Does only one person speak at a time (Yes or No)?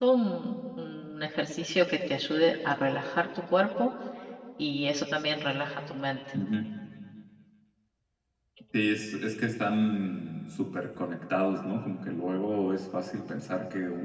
Yes